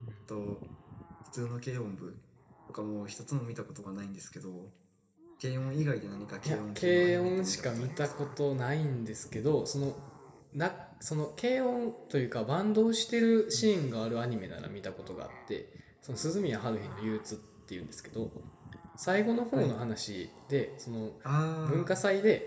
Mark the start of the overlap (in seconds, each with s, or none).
6.4 s